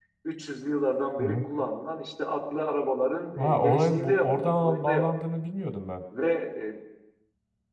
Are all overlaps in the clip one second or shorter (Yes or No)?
No